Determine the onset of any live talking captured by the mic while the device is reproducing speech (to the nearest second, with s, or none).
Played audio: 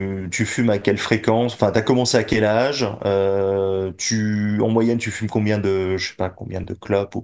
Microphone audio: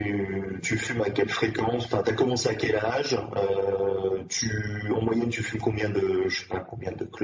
none